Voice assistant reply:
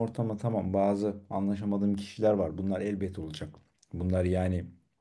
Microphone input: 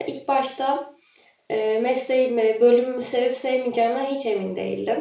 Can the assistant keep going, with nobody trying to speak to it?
No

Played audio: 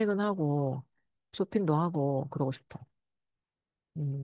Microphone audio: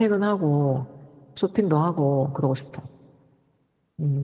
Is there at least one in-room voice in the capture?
No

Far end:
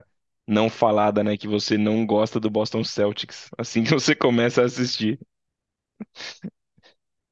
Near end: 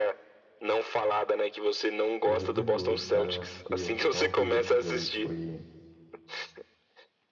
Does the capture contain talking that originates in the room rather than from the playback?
Yes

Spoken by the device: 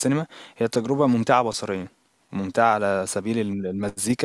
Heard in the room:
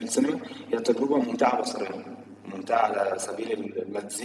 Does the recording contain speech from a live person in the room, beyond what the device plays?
No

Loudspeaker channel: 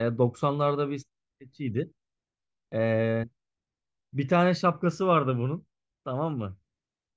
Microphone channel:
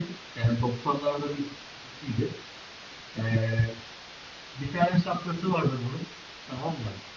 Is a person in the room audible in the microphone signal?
No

